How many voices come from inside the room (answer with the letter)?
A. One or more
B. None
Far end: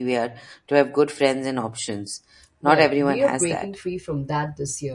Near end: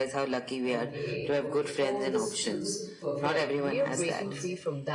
A